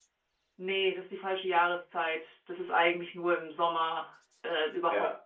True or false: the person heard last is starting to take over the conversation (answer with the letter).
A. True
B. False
B